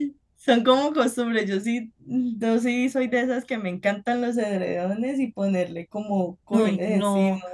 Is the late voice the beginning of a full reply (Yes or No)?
Yes